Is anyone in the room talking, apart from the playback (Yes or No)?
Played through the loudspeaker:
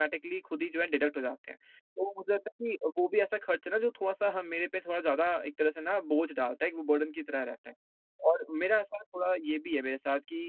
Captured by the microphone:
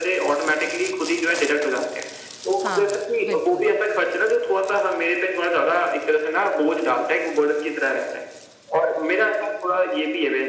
Yes